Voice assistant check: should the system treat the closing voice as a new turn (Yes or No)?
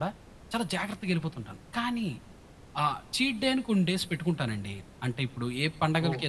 No